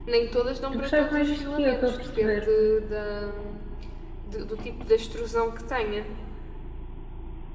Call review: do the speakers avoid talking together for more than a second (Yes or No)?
No